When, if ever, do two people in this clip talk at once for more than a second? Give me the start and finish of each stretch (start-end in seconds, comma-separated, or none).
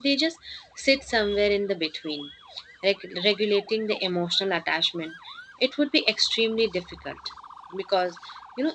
none